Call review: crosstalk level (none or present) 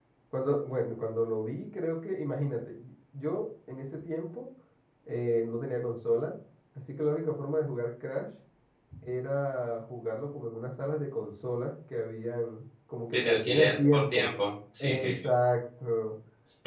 present